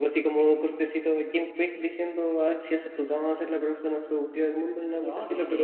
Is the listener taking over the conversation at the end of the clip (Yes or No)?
Yes